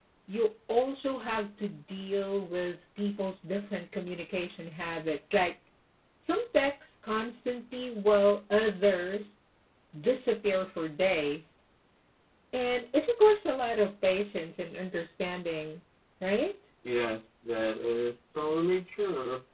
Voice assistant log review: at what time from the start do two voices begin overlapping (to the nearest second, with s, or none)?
none